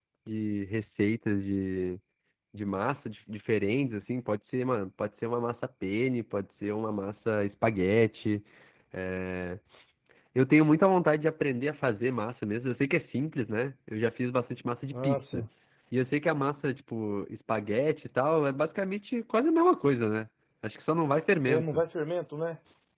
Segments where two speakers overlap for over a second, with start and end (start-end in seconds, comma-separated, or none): none